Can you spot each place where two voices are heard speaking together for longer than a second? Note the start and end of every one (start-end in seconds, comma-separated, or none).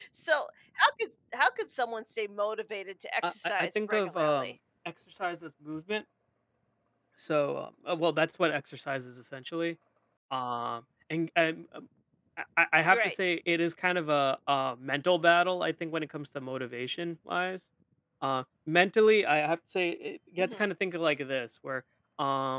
3.2-4.5